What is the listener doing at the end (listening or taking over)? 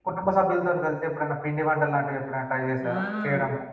taking over